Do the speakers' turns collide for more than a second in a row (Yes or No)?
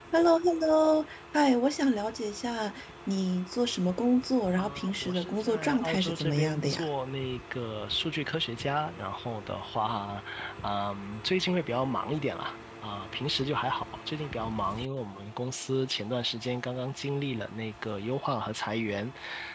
Yes